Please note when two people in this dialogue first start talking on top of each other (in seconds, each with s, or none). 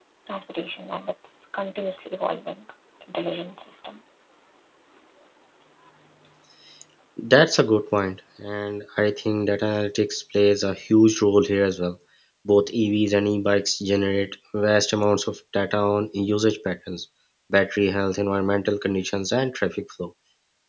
none